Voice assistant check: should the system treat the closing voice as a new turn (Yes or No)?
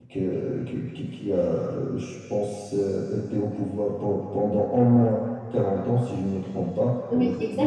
Yes